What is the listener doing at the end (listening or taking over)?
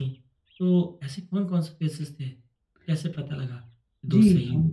taking over